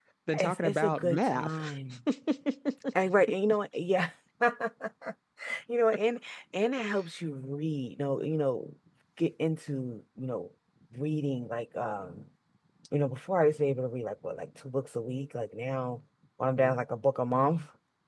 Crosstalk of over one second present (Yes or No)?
Yes